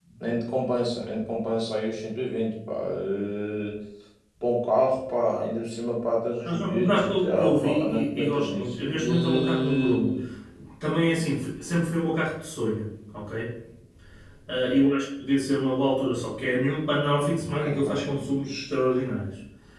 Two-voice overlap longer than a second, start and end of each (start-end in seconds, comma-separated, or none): 6.4-10.1